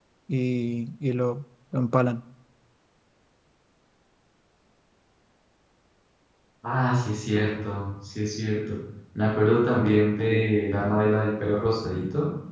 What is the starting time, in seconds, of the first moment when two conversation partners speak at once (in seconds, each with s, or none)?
none